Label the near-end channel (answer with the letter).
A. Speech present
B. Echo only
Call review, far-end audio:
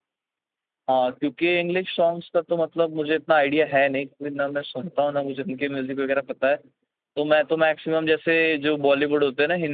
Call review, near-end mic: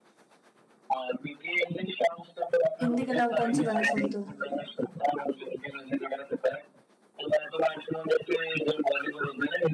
A